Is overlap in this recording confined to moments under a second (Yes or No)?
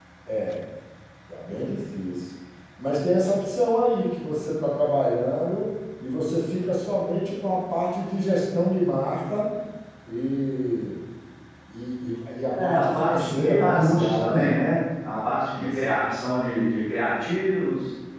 No